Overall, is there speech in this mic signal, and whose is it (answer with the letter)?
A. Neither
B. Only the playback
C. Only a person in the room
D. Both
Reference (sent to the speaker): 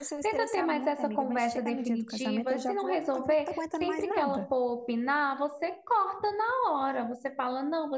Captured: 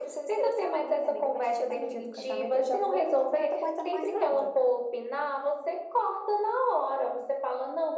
B